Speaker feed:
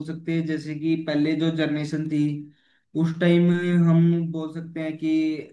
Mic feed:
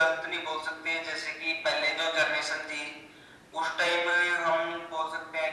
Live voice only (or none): none